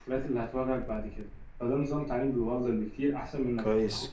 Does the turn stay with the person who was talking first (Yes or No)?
Yes